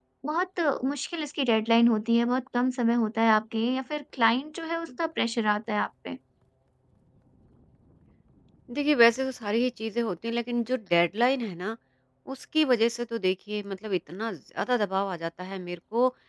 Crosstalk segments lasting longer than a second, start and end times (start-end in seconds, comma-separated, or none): none